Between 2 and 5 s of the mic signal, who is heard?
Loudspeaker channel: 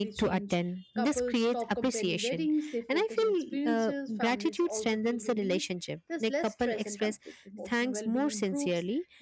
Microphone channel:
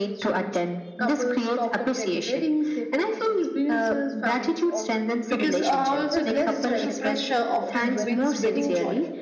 echo only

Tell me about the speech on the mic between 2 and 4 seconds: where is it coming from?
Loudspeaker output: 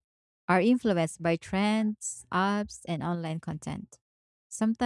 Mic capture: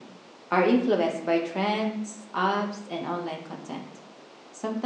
echo only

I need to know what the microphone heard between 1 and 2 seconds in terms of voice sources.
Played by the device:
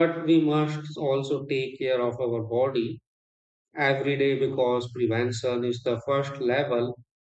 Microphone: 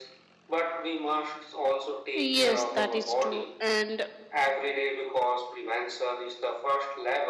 echo only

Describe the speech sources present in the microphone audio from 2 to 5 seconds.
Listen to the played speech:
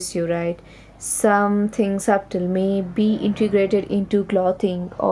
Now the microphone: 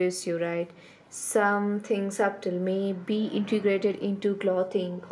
echo only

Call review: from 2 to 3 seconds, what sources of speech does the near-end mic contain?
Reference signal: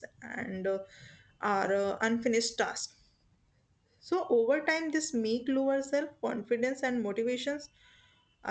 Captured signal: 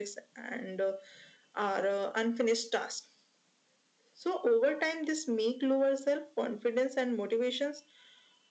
echo only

